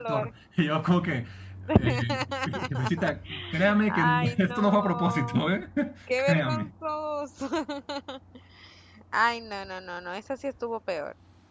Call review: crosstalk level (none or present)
present